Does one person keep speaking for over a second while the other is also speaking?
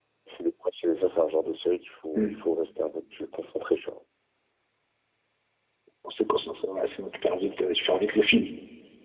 No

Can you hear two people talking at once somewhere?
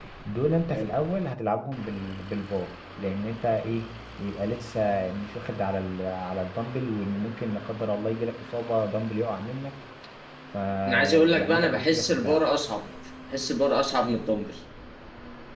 Yes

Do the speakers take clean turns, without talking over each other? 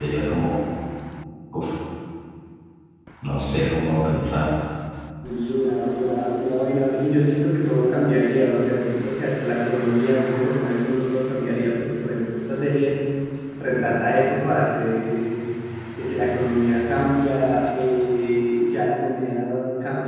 Yes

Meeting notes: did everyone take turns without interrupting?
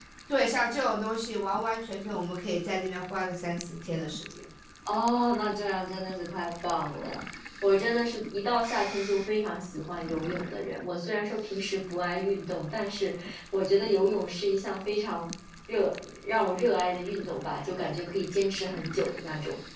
Yes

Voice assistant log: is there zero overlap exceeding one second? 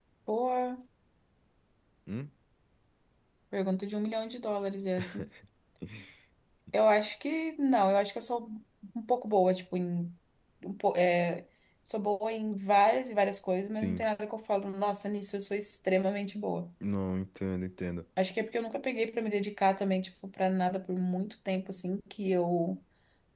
Yes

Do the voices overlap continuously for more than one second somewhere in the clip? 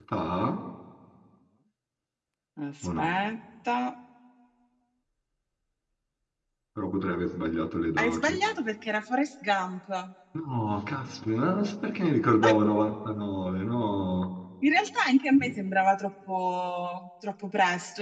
No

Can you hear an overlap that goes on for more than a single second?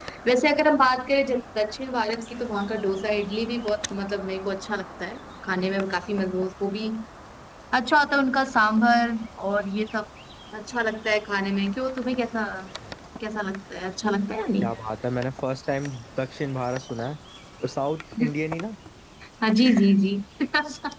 No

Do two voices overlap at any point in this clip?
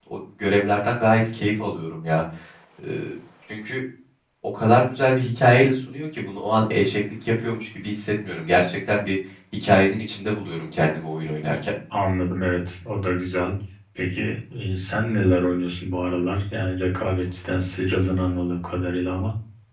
No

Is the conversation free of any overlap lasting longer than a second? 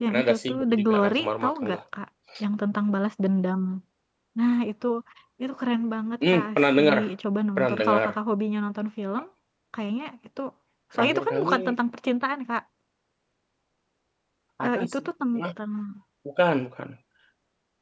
No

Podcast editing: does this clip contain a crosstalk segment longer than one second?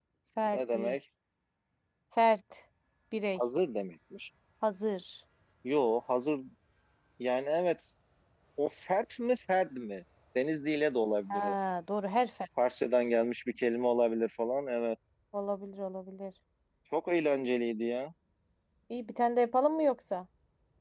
No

